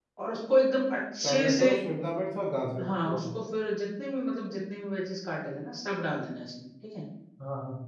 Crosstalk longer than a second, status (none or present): none